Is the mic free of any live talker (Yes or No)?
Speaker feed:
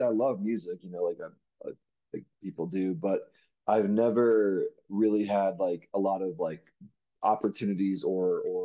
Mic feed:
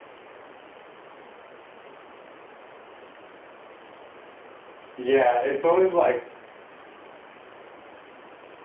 No